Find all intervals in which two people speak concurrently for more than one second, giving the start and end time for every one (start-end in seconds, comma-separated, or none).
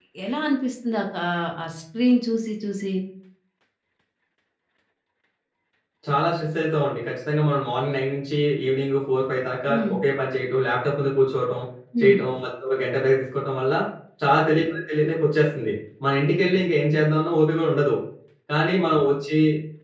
none